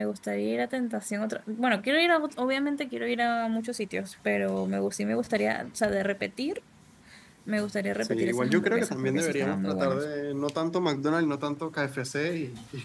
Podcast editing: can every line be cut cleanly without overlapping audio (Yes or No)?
No